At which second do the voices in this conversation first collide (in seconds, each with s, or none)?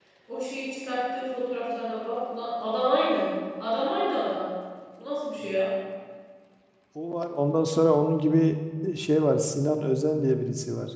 none